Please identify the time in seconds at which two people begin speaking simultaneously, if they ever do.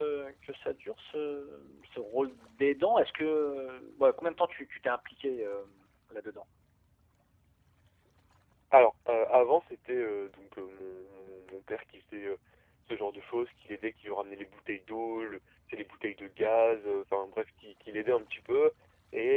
none

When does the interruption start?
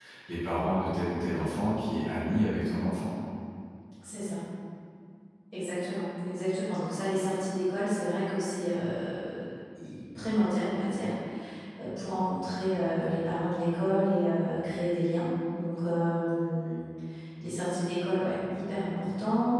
none

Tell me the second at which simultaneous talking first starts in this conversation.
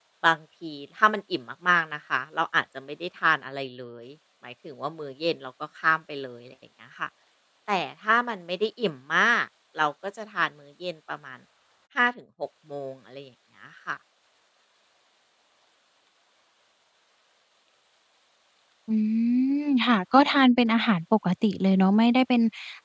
none

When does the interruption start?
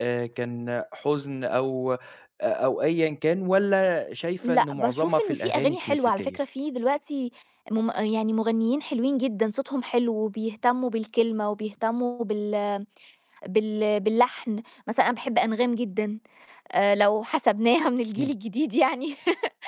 4.4 s

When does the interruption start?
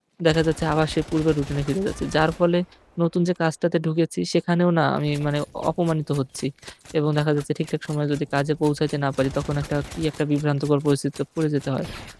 none

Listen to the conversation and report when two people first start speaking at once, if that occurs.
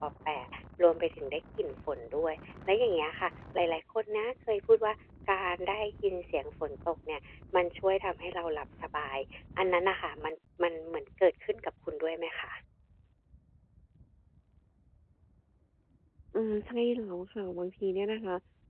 none

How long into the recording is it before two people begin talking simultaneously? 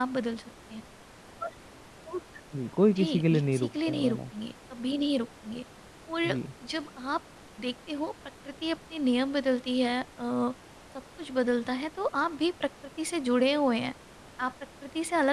3.0 s

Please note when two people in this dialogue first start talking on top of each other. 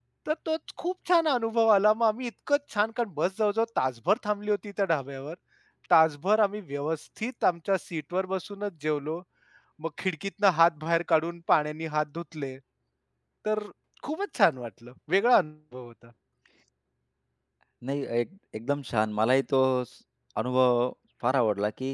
none

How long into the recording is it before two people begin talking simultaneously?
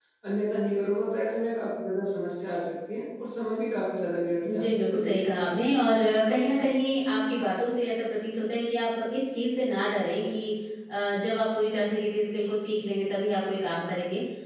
4.4 s

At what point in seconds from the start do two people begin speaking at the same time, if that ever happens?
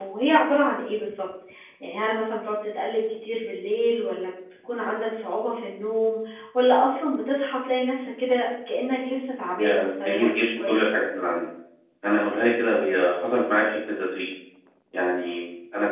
9.6 s

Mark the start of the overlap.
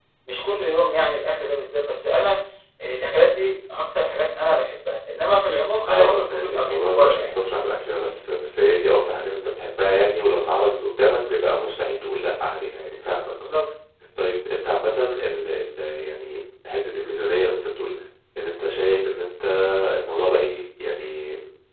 5.9 s

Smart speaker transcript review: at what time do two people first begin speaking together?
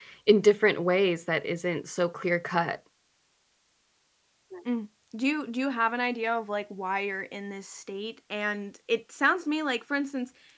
none

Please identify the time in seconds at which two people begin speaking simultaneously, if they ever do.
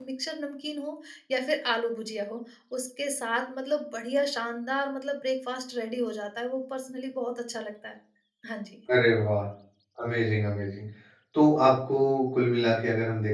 none

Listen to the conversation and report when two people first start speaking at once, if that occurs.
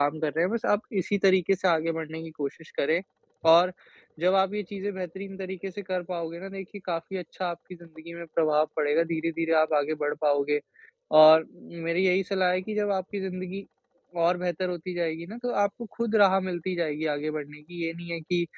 none

